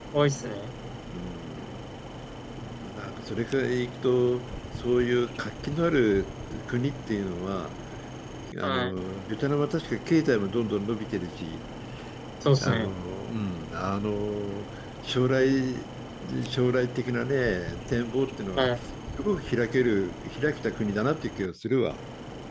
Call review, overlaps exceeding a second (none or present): none